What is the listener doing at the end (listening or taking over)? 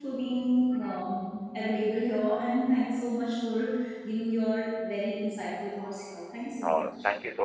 taking over